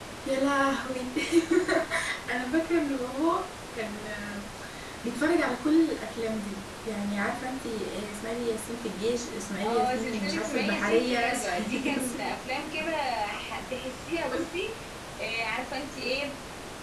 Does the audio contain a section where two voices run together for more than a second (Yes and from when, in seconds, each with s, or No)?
Yes, from 9.6 s